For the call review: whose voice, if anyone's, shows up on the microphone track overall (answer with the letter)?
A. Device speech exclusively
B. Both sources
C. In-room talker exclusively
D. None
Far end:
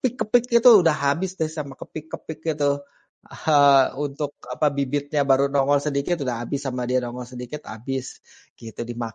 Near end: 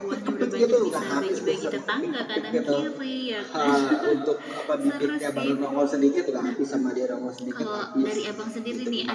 B